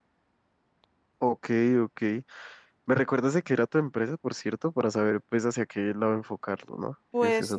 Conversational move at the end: taking over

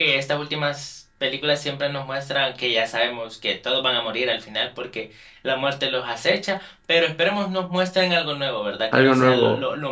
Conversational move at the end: listening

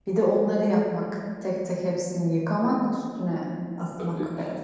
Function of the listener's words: taking over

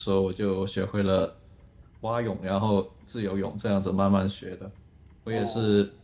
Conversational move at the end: listening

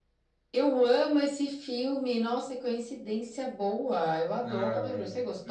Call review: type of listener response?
taking over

